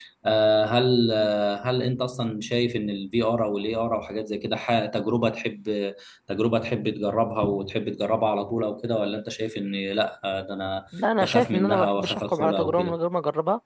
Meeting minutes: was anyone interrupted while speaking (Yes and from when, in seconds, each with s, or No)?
Yes, from 11.2 s